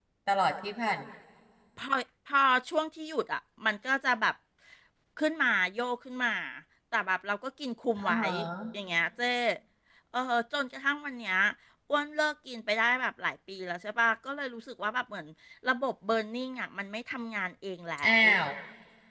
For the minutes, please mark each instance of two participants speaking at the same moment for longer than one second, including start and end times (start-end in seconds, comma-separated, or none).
none